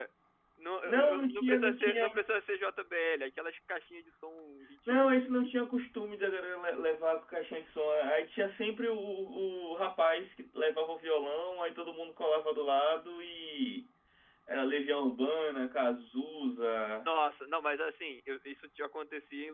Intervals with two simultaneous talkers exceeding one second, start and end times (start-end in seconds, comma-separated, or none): 0.8-2.1